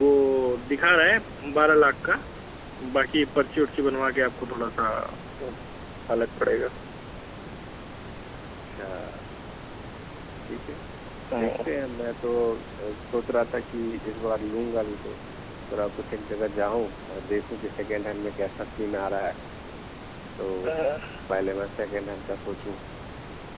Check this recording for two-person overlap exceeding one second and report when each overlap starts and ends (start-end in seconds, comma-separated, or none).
none